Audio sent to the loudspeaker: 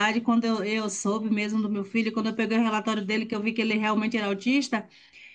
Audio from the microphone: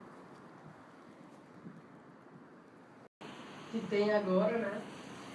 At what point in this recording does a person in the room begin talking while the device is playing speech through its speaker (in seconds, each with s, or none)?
3.7 s